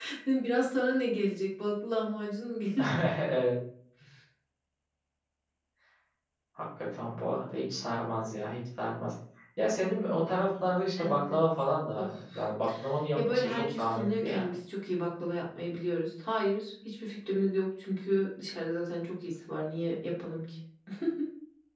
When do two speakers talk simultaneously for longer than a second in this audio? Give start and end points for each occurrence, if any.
13.2-14.4

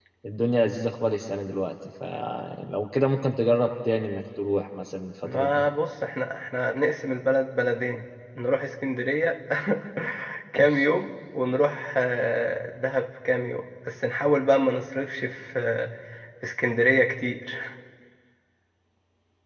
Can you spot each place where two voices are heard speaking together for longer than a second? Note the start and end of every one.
none

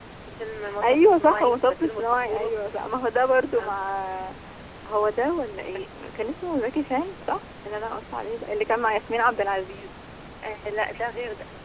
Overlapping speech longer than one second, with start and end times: 0.8-2.5

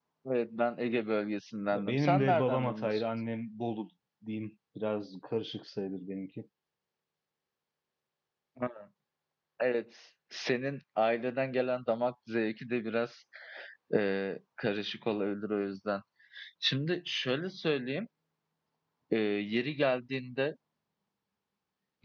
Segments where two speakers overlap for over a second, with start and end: 1.7-3.0

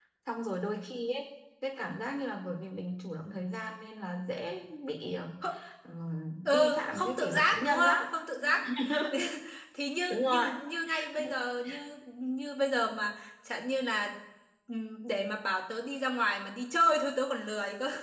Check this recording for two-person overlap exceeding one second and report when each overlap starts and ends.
6.5-8.0

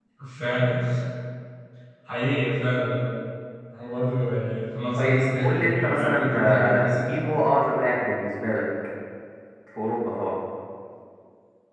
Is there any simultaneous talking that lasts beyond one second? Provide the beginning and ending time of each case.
5.0-7.1

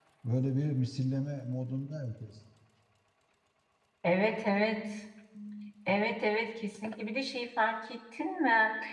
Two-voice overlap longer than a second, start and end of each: none

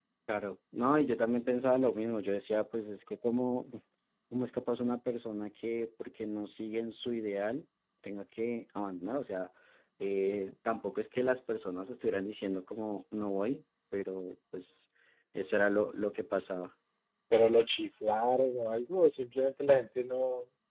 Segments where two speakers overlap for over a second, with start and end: none

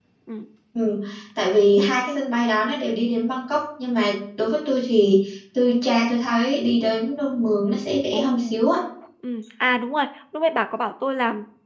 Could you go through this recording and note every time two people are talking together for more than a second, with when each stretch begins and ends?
none

